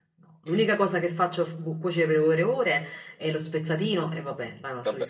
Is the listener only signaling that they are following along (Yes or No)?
No